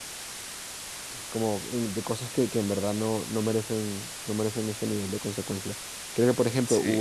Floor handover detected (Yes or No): No